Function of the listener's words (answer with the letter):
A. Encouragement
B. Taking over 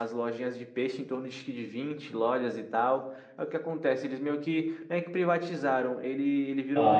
A